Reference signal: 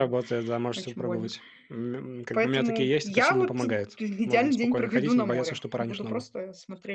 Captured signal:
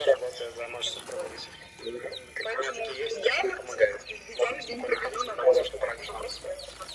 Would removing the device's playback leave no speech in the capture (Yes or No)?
Yes